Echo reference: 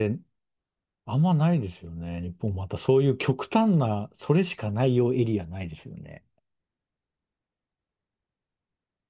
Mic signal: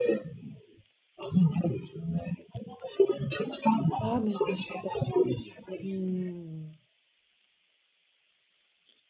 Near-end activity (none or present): present